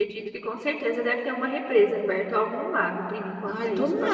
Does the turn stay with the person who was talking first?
No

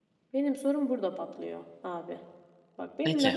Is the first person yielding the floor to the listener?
No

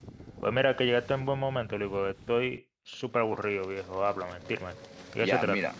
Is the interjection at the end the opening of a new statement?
Yes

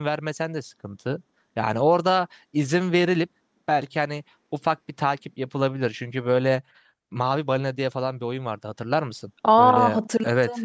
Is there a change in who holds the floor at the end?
Yes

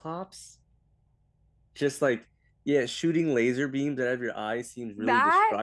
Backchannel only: Yes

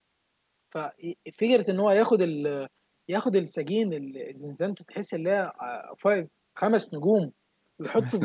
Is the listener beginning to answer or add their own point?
No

